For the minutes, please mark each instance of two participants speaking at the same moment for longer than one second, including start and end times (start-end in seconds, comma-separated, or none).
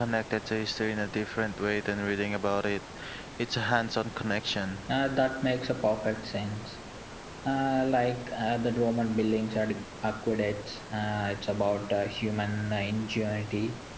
none